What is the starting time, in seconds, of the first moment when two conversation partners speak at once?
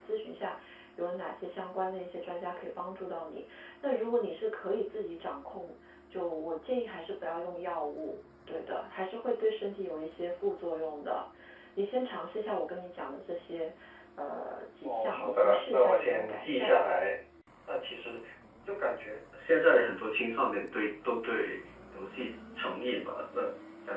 14.8 s

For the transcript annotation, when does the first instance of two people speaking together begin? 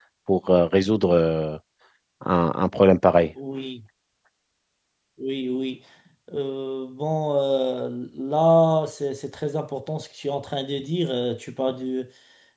none

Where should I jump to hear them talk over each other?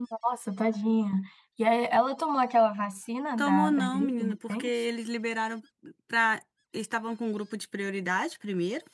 3.4 s

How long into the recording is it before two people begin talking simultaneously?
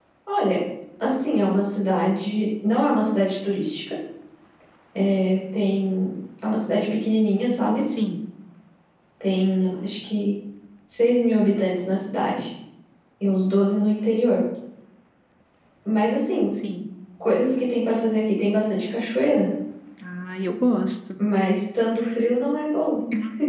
none

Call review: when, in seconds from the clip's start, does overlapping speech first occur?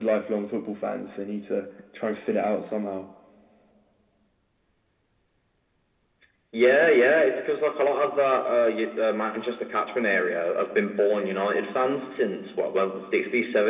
none

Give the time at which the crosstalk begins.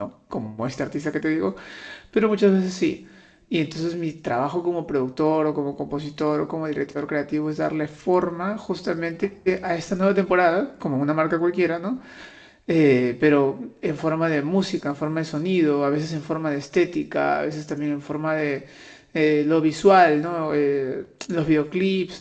none

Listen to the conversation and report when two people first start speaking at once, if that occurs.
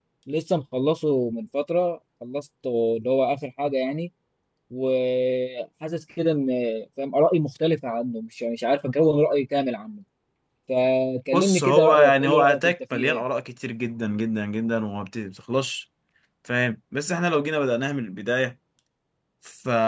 11.3 s

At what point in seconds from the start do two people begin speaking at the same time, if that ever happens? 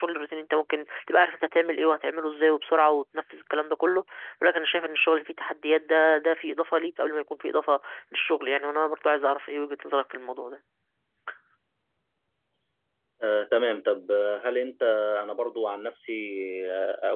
none

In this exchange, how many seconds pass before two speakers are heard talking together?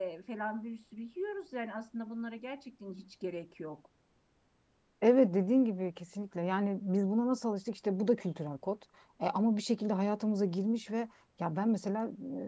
none

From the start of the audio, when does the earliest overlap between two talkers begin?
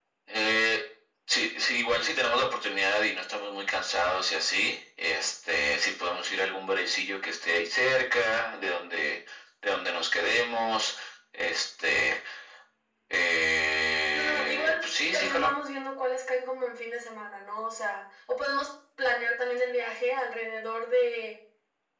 14.1 s

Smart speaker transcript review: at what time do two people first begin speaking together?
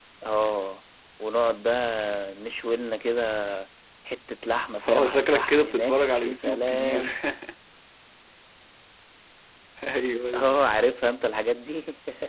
4.9 s

